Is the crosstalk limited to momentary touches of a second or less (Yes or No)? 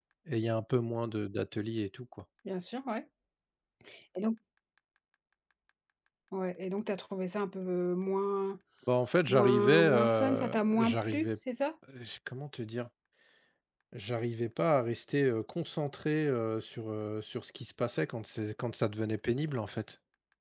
No